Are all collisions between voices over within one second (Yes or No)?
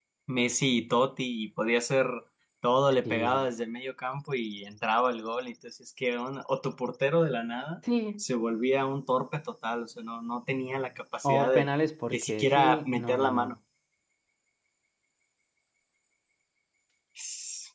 No